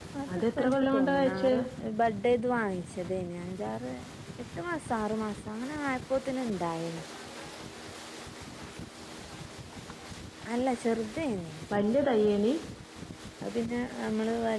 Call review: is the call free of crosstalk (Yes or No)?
No